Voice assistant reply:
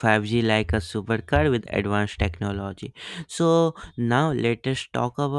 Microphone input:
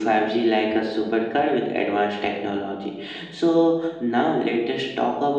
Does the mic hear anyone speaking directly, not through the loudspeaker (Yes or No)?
No